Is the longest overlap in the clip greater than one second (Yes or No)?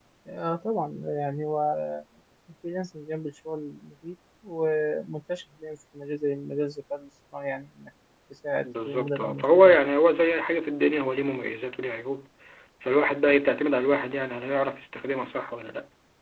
Yes